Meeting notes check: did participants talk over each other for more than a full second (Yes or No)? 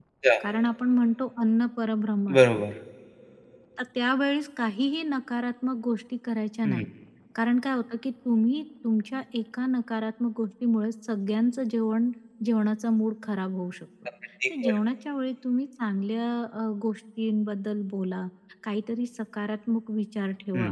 No